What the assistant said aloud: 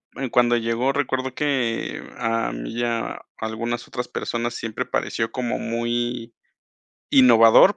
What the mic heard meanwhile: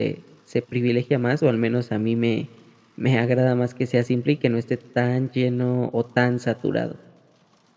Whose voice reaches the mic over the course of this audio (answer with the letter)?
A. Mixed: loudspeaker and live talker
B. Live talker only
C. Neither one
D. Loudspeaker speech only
B